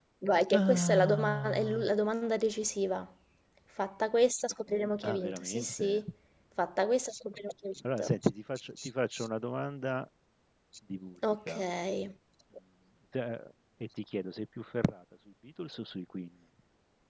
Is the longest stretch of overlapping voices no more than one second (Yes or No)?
No